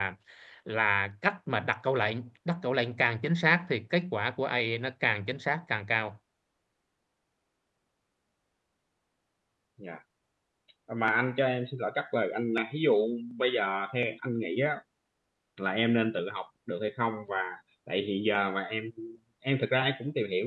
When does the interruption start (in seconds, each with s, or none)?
none